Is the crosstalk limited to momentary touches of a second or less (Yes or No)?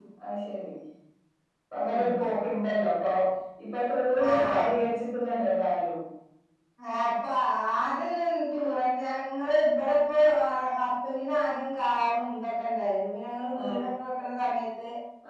Yes